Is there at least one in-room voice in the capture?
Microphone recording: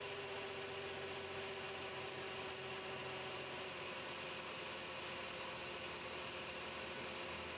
No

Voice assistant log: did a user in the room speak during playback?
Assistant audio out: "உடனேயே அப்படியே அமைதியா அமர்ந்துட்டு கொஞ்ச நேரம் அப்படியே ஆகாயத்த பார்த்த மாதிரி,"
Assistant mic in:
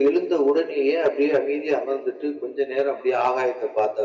No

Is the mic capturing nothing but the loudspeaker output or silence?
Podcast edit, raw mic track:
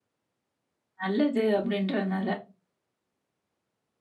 No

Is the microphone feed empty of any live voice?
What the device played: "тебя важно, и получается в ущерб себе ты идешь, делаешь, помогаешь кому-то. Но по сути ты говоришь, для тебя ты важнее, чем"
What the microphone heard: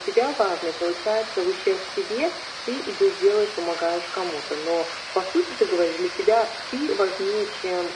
Yes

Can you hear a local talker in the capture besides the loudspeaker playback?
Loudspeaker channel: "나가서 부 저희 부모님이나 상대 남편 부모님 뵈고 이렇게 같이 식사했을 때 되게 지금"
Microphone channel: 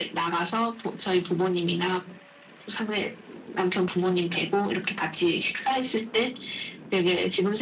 No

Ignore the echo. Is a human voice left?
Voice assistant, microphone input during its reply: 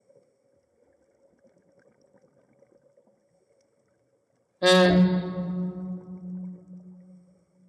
Yes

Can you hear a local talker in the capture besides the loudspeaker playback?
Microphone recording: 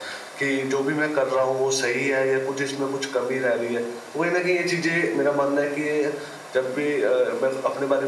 No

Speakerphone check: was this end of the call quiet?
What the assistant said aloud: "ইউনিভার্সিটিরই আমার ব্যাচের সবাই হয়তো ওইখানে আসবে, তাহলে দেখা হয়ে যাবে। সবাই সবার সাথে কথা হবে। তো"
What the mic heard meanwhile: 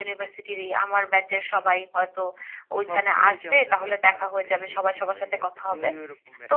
No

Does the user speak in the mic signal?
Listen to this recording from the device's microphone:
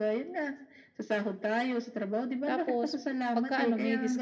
Yes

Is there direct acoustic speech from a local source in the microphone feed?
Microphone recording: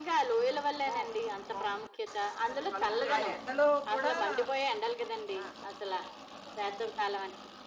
Yes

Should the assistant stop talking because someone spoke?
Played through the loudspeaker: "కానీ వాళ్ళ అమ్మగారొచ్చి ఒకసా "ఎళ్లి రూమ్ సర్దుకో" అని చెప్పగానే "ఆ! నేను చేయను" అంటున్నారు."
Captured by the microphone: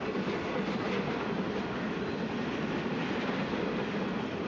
No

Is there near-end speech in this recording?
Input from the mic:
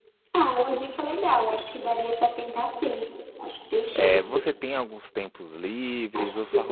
Yes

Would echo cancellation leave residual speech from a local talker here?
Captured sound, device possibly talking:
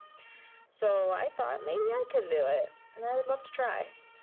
No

